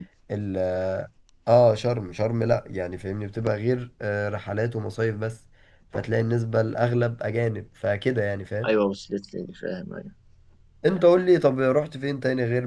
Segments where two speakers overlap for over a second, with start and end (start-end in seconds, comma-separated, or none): none